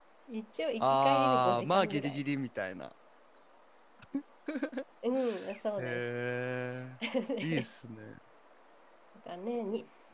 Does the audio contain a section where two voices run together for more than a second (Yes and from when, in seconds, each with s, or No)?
Yes, from 0.8 s